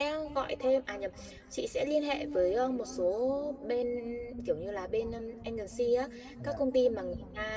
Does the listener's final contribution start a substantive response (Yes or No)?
No